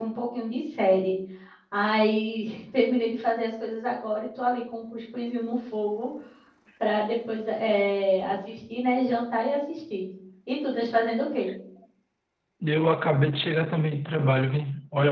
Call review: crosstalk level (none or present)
none